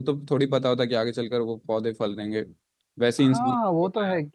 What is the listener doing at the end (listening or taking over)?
taking over